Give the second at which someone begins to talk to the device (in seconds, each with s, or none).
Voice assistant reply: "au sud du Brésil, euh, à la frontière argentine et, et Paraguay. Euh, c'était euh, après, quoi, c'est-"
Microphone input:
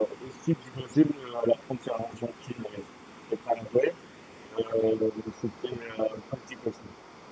none